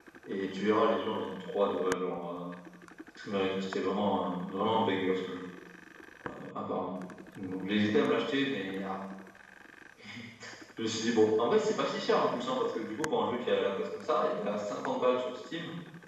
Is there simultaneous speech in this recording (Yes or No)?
No